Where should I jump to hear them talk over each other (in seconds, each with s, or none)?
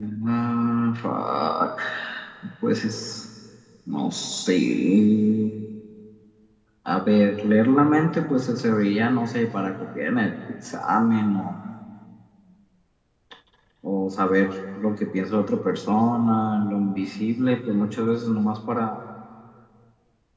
none